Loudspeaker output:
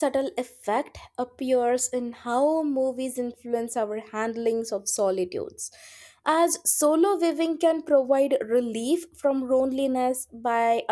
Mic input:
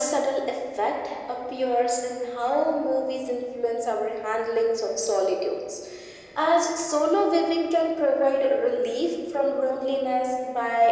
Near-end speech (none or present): none